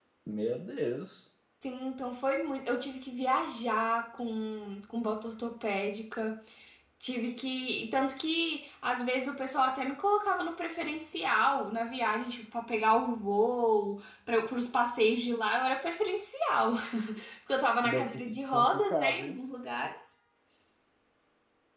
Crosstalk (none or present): present